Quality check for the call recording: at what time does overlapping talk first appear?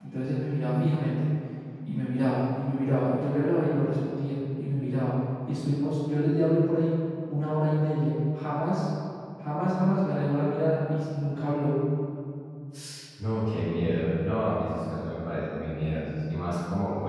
none

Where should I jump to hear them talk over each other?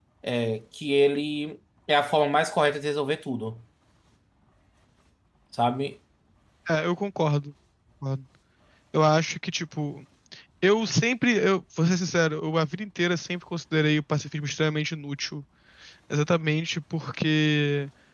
none

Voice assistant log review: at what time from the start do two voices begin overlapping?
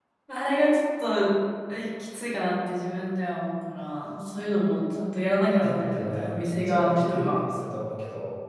6 s

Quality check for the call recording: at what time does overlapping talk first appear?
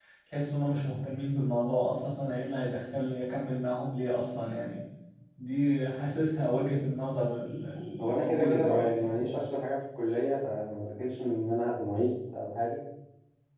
8 s

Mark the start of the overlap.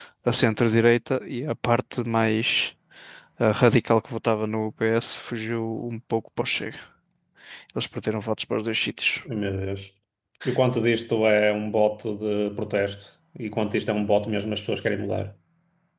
none

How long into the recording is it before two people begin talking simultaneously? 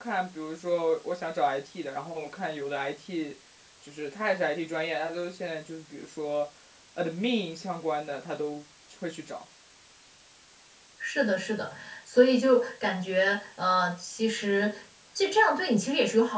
none

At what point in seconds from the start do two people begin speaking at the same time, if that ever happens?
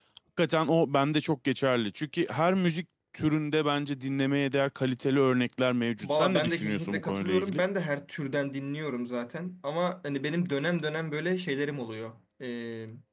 6 s

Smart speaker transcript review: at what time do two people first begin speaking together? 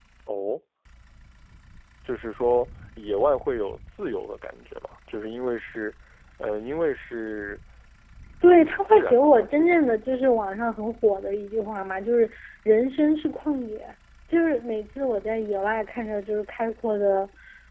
9 s

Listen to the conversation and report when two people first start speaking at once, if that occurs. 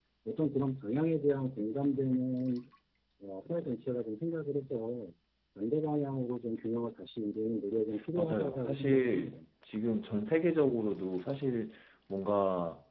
8 s

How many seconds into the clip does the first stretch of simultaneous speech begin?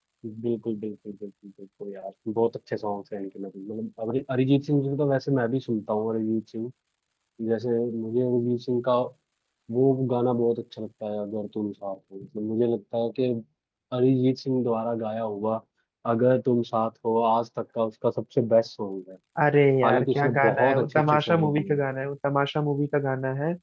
20 s

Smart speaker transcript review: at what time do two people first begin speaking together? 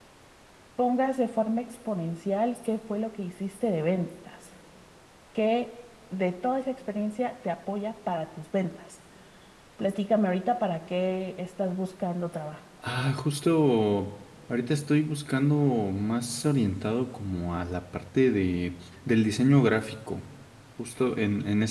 none

